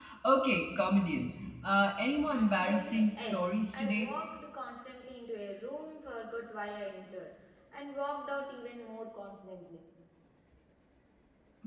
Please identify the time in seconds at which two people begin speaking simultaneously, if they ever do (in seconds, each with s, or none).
2.3 s